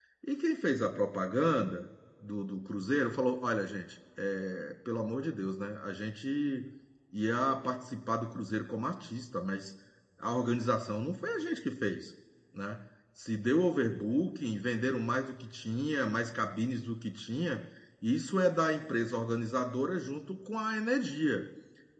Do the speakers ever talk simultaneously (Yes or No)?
No